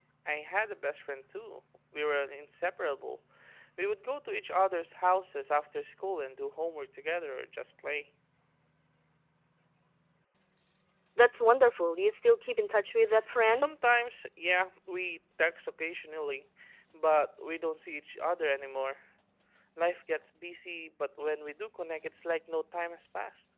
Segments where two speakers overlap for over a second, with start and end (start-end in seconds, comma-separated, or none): none